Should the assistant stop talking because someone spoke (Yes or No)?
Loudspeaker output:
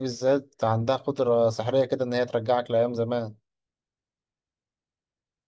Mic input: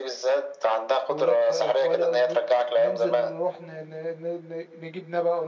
Yes